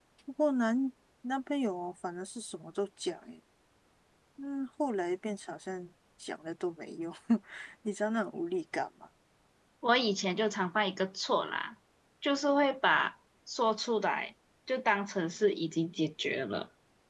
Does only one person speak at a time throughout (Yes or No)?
Yes